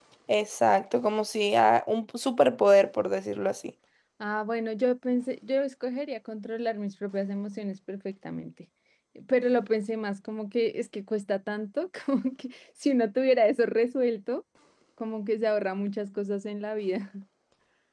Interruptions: none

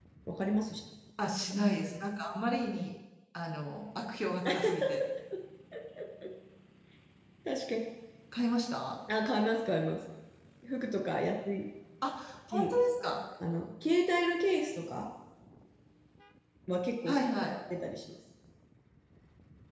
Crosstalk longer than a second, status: none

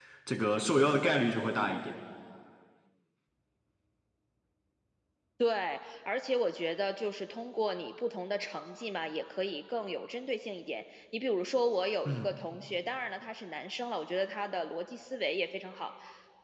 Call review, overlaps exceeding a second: none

